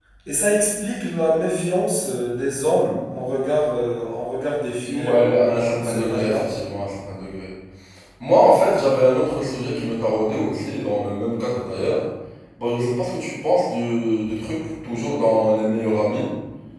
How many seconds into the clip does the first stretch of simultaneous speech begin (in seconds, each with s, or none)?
4.8 s